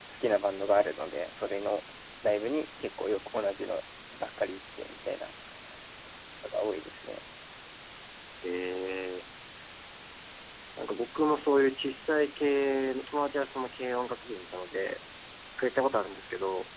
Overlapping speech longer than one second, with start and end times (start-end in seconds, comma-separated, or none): none